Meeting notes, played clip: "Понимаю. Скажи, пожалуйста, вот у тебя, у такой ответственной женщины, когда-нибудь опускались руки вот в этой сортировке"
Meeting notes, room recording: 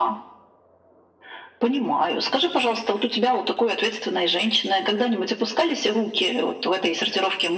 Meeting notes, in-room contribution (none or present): none